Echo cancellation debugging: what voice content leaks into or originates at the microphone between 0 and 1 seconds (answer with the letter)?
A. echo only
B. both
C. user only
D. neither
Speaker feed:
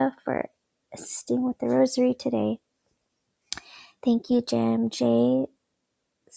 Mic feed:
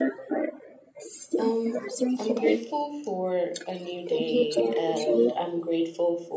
A